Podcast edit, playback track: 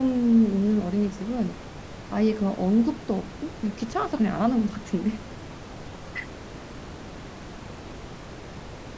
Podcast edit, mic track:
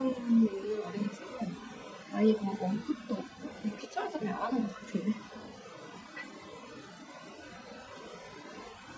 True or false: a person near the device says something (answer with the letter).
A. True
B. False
B